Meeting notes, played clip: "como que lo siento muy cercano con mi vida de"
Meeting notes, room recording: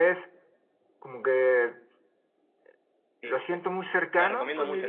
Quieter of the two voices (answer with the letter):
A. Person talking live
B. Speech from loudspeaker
A